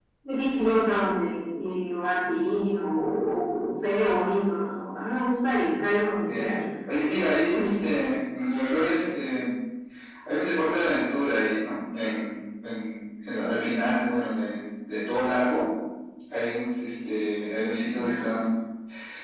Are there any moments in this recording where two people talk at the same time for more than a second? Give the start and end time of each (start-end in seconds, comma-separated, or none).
none